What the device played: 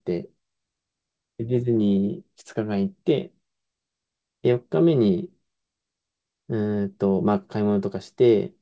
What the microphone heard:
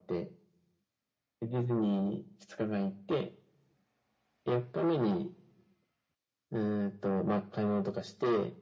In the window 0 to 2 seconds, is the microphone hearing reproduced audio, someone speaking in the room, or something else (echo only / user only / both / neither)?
echo only